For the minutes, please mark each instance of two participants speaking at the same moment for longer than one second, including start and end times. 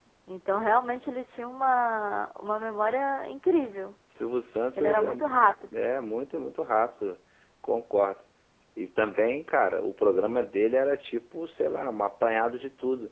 none

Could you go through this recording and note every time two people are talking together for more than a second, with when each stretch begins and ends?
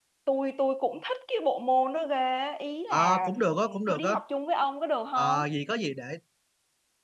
2.9-4.1

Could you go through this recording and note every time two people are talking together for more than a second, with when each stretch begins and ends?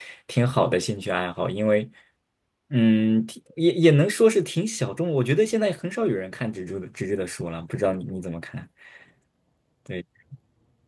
none

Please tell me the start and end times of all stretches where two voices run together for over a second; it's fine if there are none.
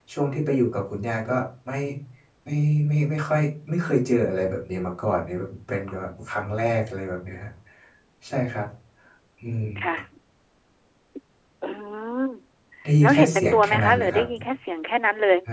13.0-14.2

